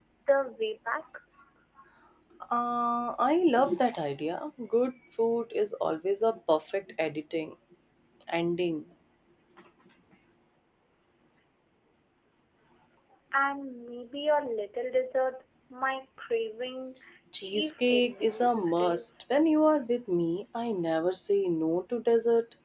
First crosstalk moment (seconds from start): 17.4 s

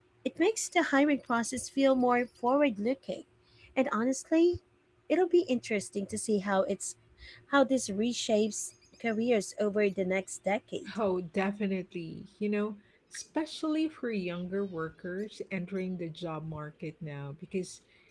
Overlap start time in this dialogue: none

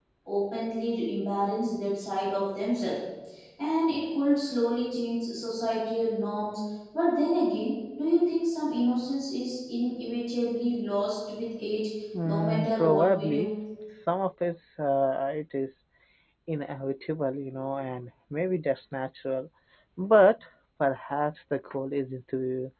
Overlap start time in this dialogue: 12.1 s

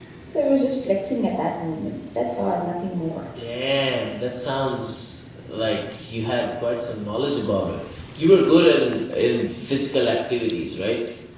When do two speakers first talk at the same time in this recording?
none

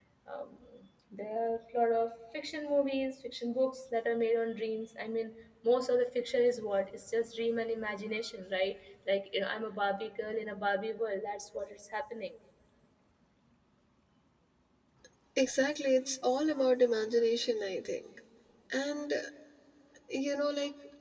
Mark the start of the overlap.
none

